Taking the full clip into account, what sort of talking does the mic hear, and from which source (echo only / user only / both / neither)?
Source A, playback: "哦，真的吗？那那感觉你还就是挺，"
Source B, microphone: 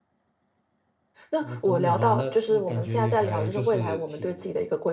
both